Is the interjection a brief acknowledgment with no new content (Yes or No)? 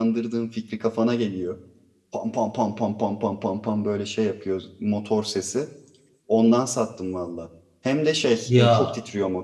Yes